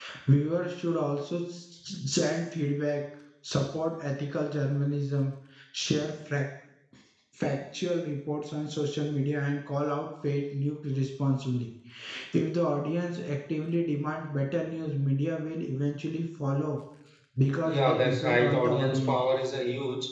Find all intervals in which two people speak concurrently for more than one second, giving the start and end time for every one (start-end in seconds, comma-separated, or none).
17.6-19.2